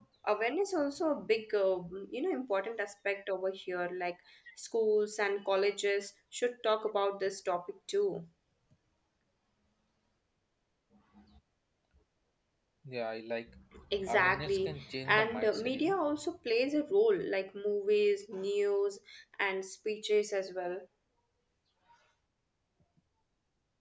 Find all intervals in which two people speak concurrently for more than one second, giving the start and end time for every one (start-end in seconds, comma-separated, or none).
14.1-16.0